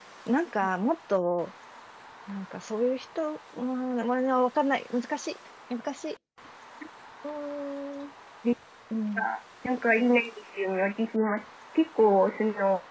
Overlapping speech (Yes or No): No